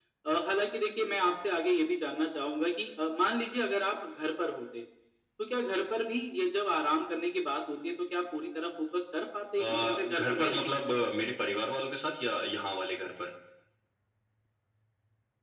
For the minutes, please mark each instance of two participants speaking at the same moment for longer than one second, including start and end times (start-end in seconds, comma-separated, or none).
9.6-11.0